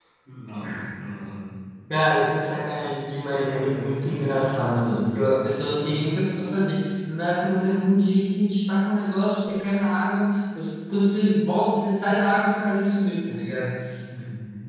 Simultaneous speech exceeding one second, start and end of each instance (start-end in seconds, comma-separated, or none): 3.3-5.3